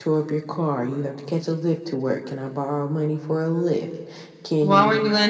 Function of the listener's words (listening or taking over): taking over